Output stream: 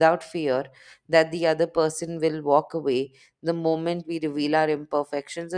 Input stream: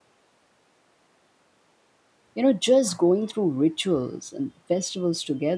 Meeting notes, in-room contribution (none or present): present